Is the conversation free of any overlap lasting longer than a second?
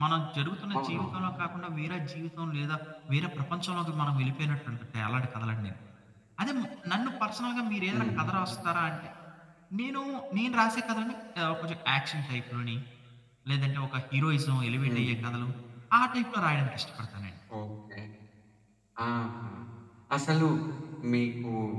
Yes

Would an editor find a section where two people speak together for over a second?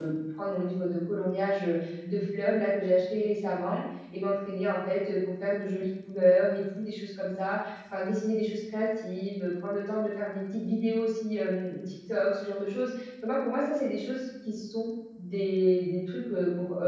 No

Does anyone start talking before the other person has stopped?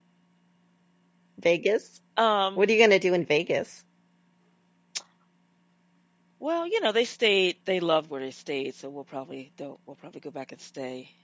No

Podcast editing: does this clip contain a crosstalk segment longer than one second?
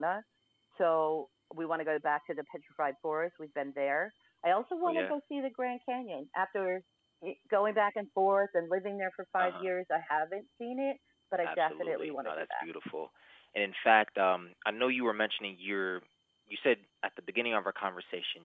Yes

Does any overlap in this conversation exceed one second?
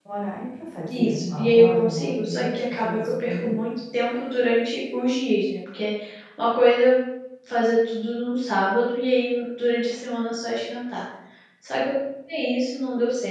Yes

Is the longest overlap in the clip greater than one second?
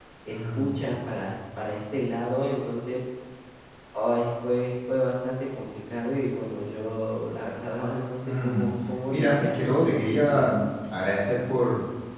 Yes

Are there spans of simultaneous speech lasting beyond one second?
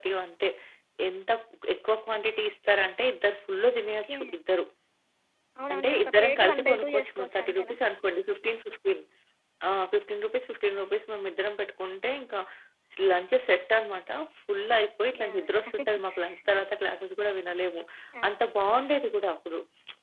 Yes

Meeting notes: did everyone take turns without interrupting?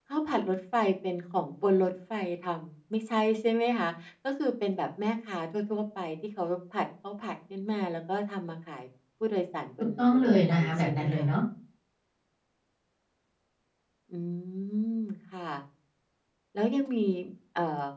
No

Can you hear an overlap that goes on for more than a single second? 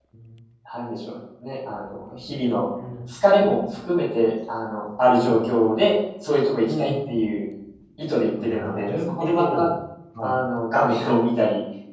Yes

